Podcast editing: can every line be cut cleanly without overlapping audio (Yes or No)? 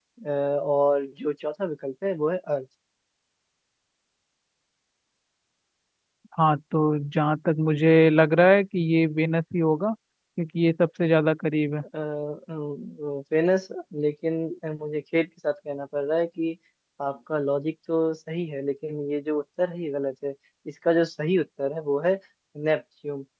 Yes